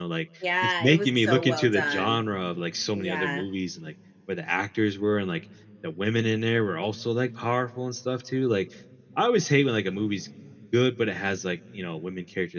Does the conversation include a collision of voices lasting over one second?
Yes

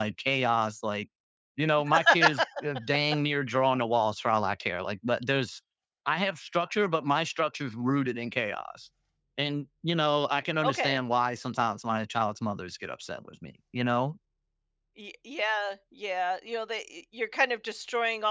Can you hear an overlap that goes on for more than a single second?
No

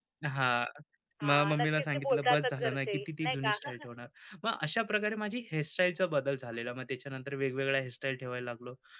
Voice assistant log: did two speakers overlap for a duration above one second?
Yes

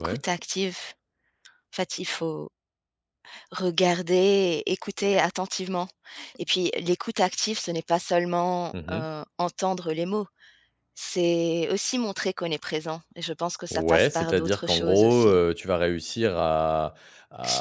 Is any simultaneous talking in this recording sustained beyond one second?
Yes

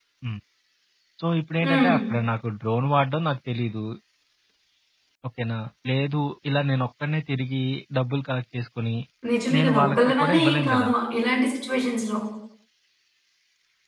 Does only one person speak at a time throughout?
No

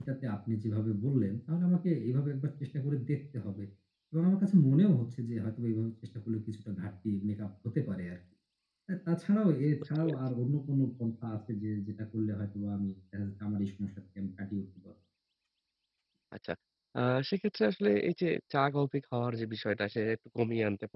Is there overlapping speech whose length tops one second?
No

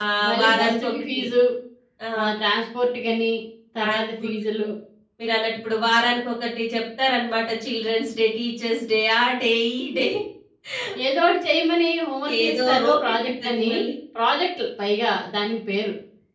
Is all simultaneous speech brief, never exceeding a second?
No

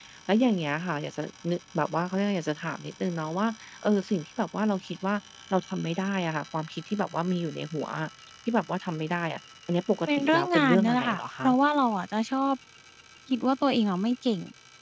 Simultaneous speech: Yes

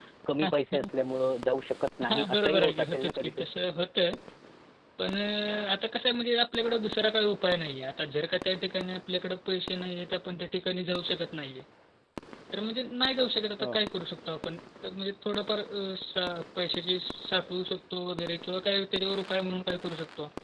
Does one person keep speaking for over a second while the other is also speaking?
Yes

